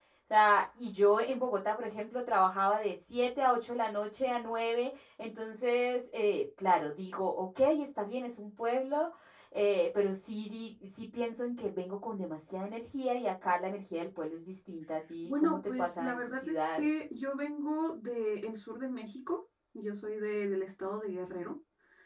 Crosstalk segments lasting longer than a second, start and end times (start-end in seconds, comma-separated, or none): 15.2-16.8